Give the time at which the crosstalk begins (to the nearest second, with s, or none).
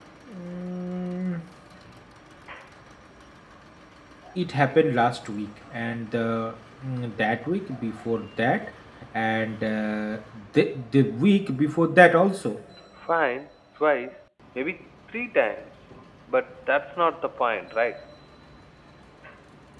none